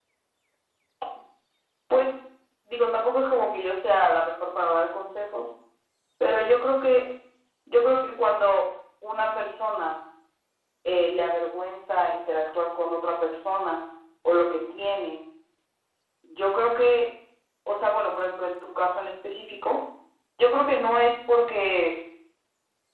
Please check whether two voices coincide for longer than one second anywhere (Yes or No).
No